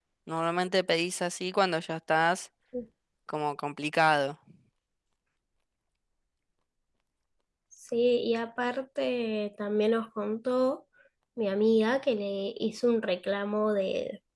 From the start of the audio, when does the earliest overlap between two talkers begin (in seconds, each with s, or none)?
none